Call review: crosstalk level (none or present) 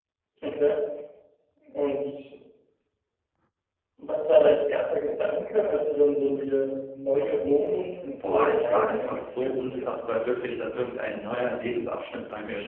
present